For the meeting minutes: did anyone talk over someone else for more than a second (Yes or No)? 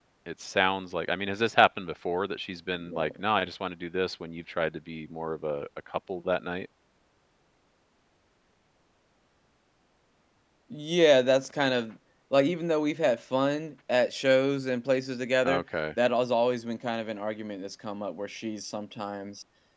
No